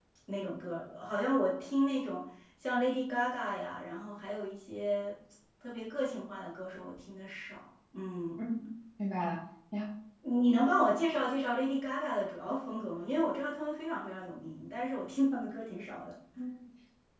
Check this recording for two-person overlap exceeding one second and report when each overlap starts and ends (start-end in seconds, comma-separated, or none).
none